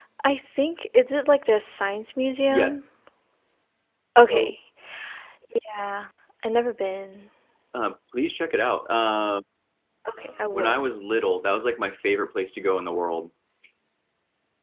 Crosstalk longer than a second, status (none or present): none